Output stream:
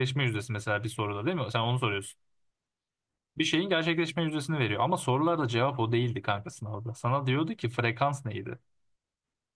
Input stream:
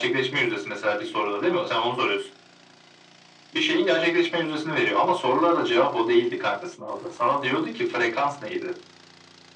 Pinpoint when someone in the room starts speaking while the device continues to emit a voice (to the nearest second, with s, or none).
none